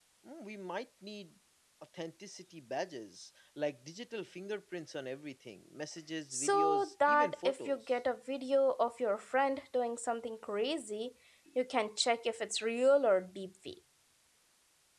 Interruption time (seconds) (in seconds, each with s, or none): 6.3 s